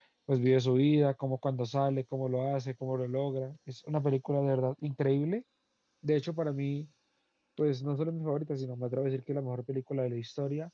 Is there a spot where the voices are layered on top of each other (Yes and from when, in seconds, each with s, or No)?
No